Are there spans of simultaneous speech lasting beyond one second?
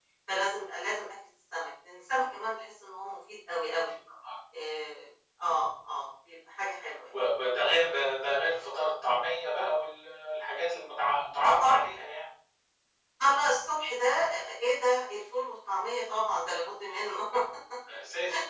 No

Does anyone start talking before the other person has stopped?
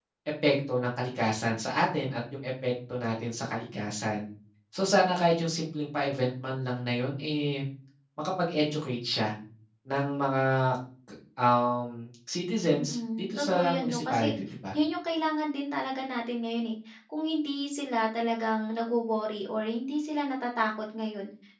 Yes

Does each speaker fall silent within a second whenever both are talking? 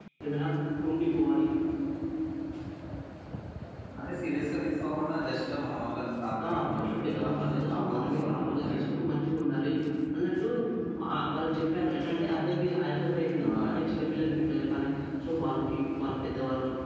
No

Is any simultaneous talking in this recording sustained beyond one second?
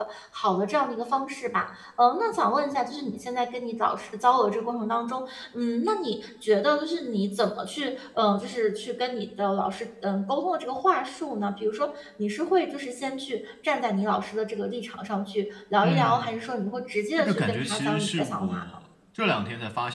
Yes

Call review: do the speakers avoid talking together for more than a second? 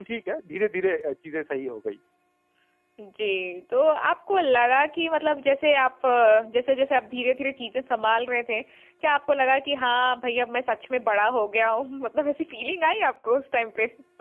Yes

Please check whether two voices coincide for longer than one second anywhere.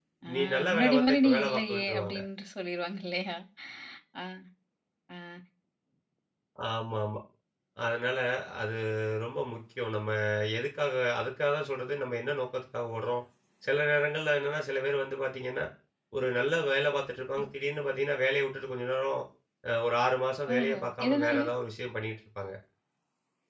Yes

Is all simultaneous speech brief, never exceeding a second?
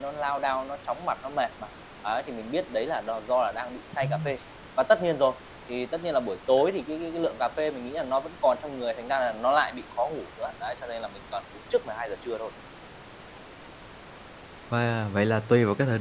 Yes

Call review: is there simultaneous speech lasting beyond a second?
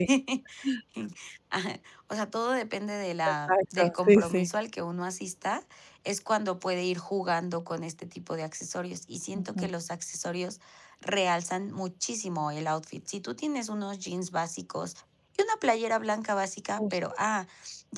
Yes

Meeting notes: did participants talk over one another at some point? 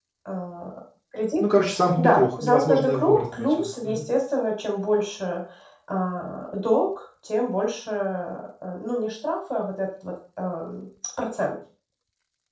Yes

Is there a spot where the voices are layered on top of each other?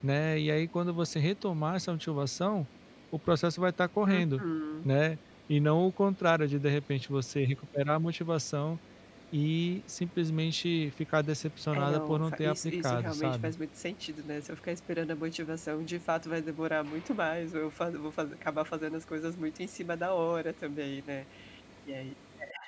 Yes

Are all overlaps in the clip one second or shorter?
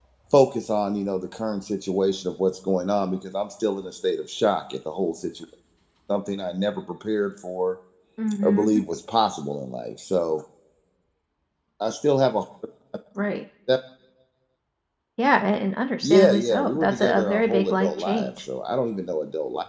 No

